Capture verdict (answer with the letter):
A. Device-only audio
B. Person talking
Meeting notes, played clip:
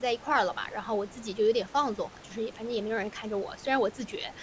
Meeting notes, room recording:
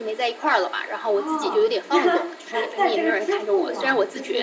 B